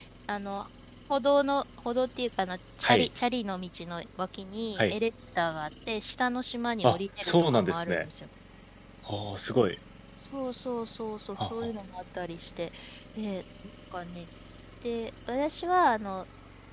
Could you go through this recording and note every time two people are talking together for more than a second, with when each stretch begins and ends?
6.8-8.0

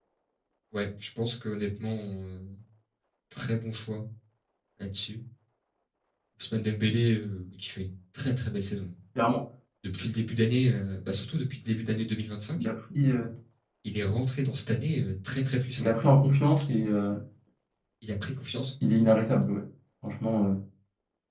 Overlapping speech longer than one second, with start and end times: none

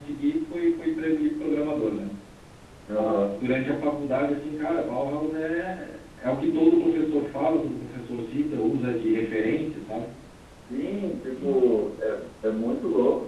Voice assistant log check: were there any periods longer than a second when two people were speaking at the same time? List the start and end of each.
none

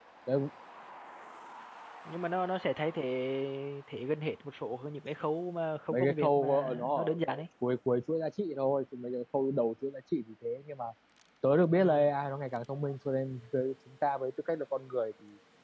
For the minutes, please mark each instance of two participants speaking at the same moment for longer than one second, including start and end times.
5.9-7.2

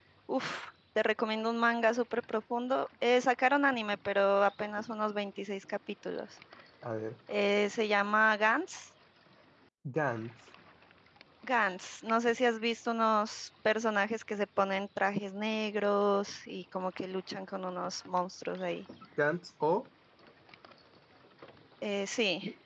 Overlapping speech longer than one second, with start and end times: none

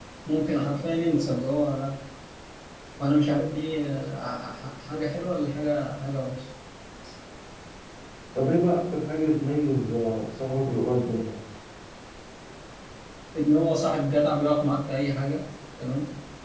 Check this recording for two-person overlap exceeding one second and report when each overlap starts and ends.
none

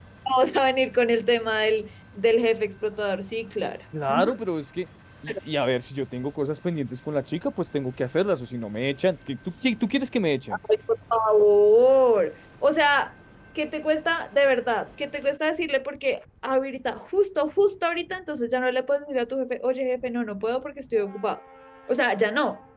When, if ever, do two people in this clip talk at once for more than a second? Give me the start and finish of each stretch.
none

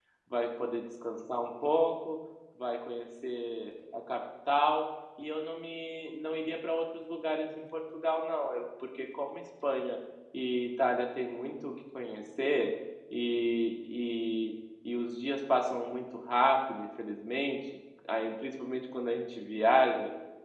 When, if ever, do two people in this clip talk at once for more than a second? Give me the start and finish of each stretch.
none

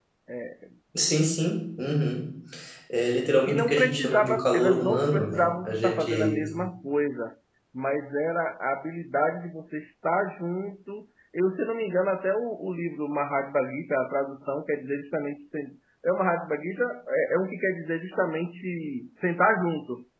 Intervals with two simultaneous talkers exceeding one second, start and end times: 3.5-6.4

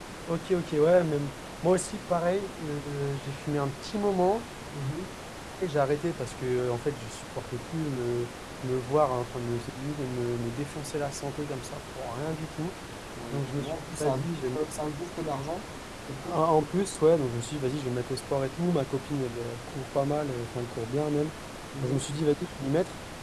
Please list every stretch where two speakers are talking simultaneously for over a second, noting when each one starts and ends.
13.3-14.6

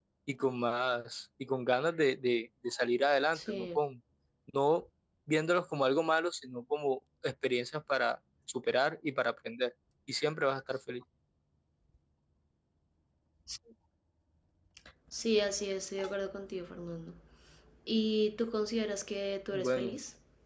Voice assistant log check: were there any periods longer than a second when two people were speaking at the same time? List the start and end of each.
none

